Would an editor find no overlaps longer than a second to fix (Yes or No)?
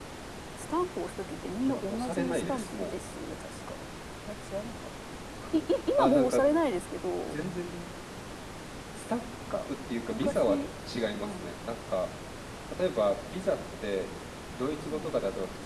No